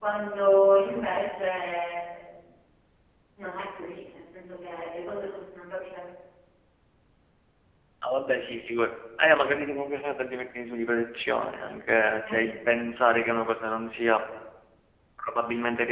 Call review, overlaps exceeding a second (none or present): none